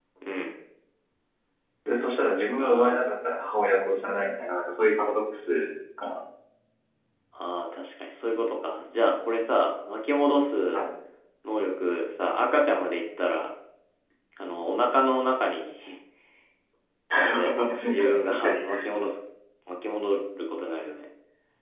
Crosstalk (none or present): present